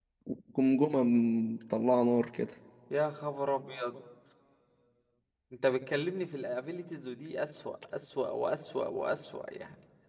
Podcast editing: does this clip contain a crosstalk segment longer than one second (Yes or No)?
No